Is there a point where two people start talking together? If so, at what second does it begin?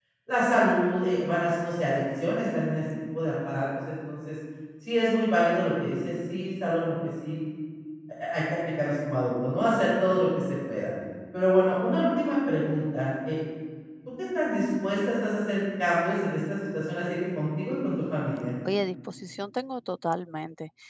none

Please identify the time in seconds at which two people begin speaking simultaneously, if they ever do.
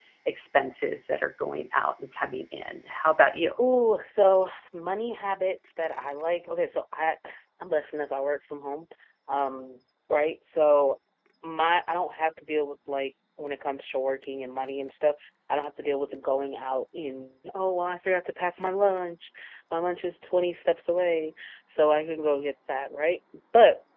none

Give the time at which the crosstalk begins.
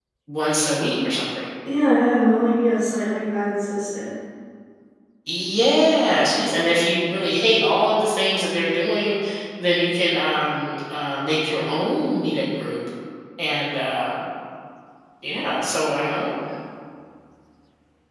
none

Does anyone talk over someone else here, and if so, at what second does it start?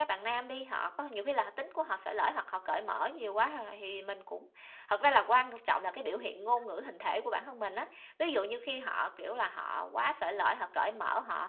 none

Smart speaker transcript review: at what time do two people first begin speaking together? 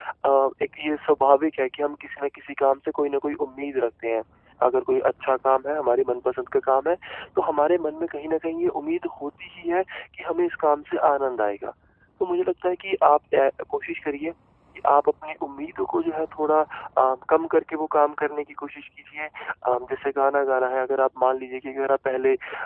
none

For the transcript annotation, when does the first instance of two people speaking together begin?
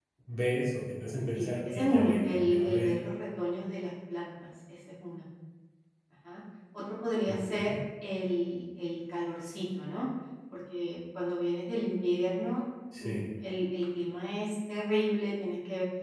1.3 s

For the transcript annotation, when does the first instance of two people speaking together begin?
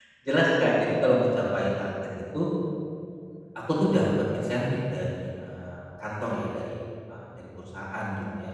none

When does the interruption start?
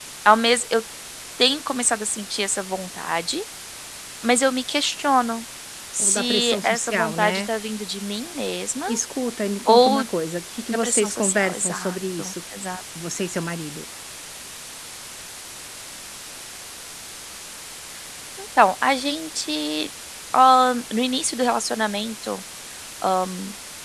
6.0 s

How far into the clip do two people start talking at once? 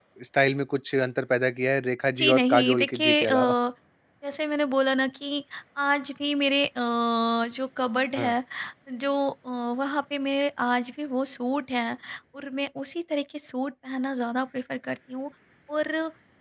2.1 s

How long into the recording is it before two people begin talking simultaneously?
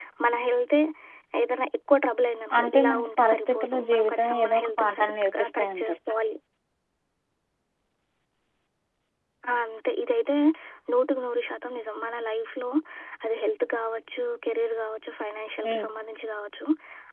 2.6 s

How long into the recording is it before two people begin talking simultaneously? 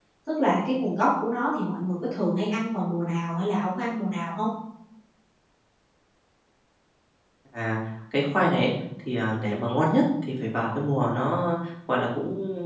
none

